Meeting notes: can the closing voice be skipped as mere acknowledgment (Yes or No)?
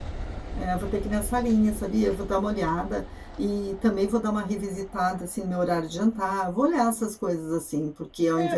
No